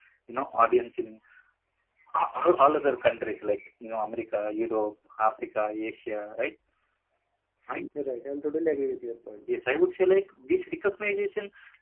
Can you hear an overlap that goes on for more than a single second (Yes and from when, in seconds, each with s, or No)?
No